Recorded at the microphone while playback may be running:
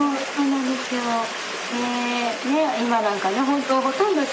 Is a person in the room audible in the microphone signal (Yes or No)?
No